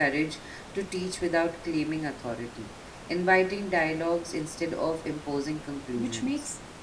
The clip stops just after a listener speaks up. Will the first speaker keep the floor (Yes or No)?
No